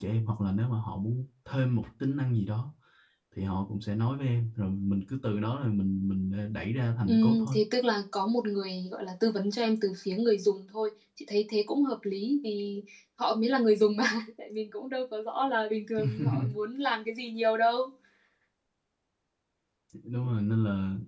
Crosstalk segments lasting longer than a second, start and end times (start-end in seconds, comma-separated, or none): none